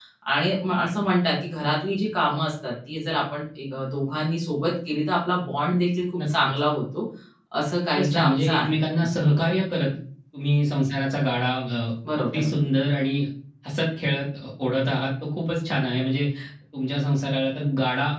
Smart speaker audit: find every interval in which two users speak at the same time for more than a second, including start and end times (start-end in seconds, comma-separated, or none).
7.8-9.1